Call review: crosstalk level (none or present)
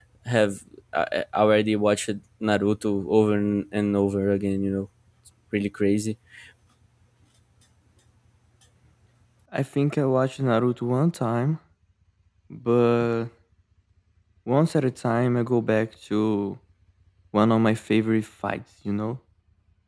none